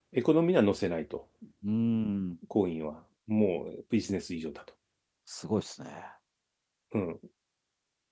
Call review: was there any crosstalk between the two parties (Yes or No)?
No